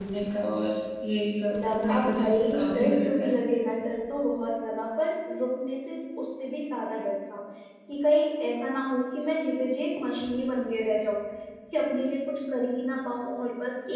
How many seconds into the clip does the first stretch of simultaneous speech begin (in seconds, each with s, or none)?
1.5 s